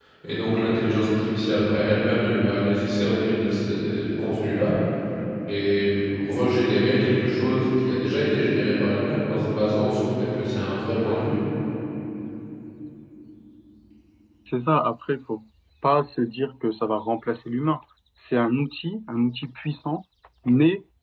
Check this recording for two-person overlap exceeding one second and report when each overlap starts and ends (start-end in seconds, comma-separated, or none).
none